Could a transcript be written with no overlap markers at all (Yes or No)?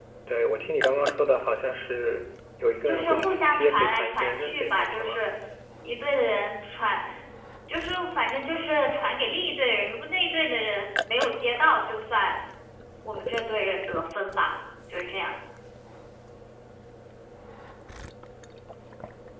No